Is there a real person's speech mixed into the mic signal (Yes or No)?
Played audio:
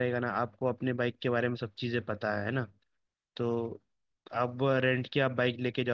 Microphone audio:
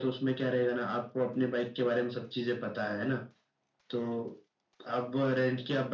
No